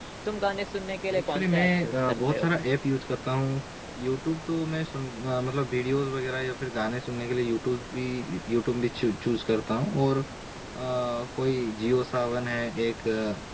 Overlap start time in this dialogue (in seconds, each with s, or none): 1.2 s